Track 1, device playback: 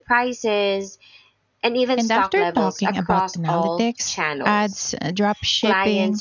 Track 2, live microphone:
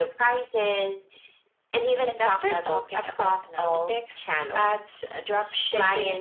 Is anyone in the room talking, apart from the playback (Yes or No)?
No